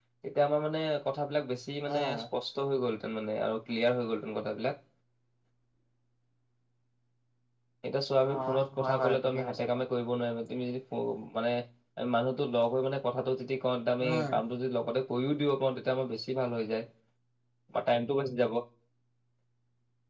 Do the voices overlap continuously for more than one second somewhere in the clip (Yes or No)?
Yes